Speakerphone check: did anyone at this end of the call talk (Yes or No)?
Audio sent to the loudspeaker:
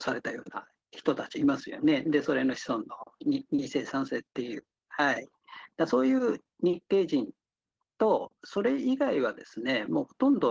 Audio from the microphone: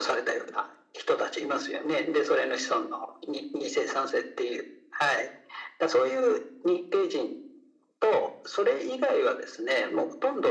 No